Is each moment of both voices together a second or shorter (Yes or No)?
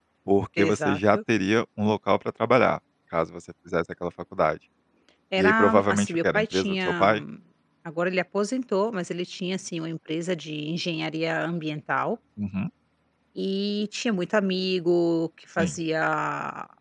No